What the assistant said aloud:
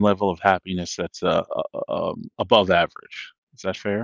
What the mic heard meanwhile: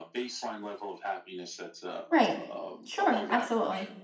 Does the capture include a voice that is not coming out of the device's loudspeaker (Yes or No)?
Yes